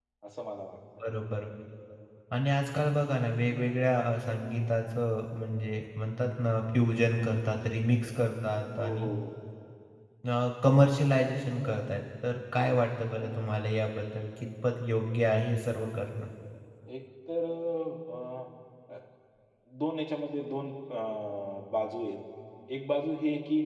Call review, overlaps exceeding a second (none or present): none